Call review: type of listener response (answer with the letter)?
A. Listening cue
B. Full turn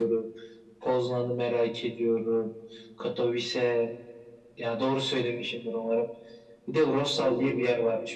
A